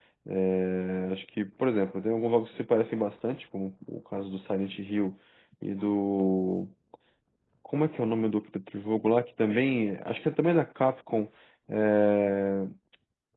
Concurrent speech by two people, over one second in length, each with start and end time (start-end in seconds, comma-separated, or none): none